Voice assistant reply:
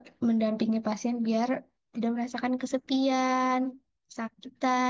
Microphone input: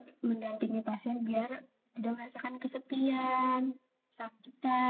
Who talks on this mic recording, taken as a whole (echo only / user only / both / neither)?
echo only